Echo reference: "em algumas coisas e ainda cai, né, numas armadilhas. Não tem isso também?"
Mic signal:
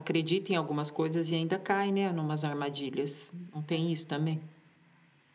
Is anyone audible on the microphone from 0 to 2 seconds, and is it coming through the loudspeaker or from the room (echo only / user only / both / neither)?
echo only